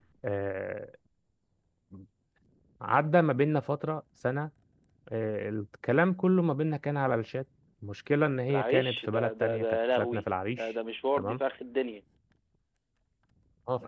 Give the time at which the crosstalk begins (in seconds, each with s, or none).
8.5 s